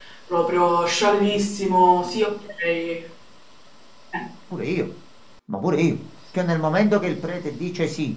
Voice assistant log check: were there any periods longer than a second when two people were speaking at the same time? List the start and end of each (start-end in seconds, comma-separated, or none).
none